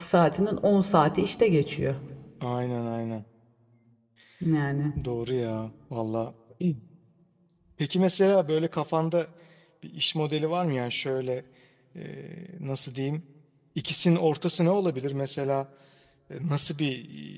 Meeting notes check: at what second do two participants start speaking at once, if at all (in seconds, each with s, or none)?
none